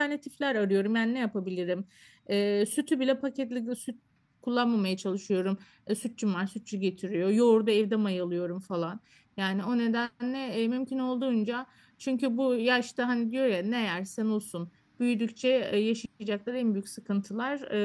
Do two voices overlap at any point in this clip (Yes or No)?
No